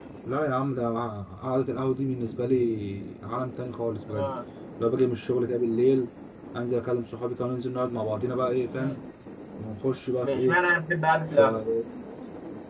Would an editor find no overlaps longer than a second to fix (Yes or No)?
Yes